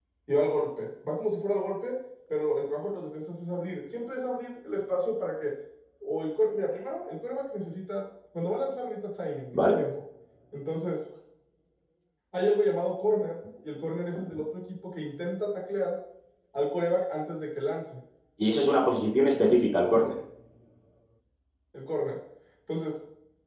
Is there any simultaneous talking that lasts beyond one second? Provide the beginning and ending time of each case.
none

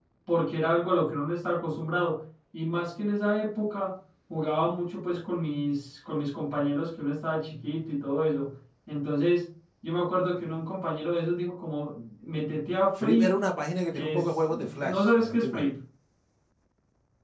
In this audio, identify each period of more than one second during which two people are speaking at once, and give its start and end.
13.9-15.7

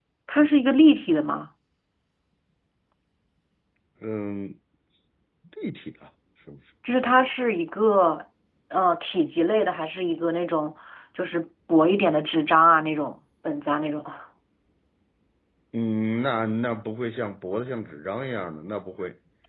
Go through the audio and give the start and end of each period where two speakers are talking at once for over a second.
none

